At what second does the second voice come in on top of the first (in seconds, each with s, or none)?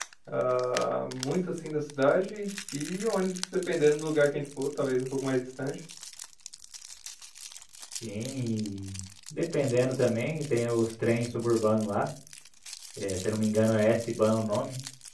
none